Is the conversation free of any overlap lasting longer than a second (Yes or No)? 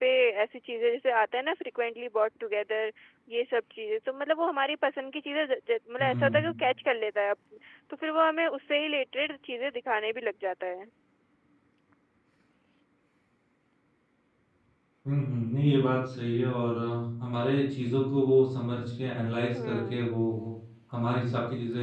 Yes